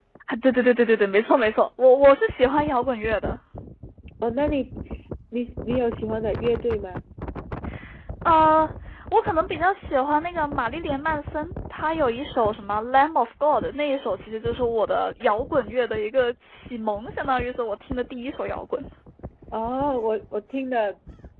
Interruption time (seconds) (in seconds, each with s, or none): none